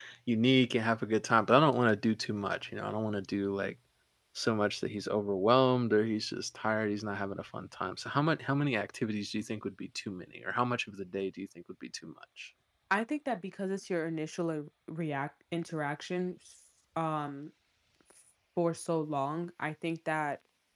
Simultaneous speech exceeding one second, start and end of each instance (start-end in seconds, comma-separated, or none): none